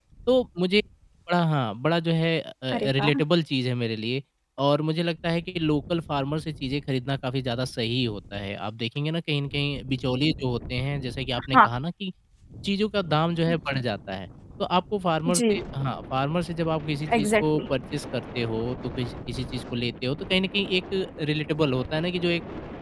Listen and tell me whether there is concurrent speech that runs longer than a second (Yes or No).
No